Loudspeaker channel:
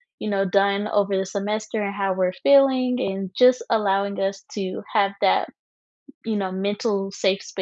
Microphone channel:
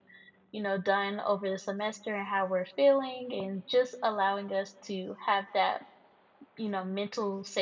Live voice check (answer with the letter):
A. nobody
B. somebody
A